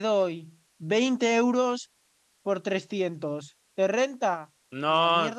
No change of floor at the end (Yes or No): No